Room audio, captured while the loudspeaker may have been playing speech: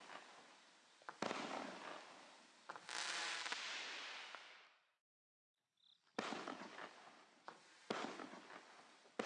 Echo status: none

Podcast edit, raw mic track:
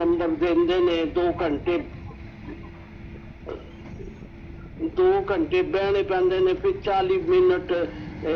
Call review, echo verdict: present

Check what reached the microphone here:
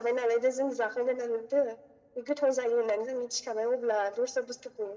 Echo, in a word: present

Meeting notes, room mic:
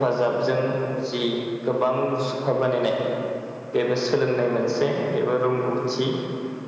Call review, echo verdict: present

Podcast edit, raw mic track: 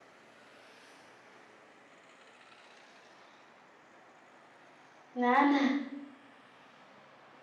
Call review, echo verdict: none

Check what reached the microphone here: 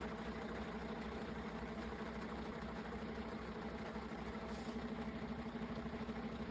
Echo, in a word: none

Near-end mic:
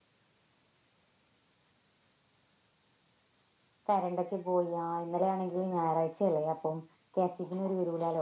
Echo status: none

